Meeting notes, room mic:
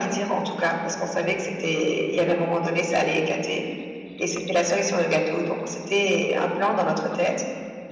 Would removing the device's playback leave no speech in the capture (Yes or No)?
Yes